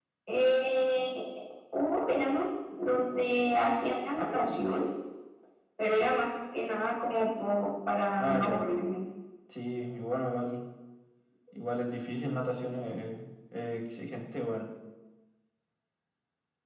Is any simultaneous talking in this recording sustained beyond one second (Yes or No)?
No